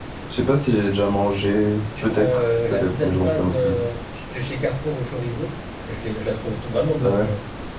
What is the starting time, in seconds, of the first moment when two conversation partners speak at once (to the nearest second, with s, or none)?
2 s